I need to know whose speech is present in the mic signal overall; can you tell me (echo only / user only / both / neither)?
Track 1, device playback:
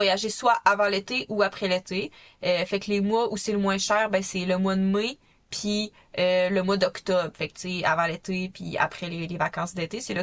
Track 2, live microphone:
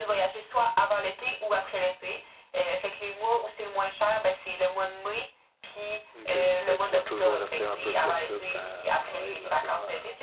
both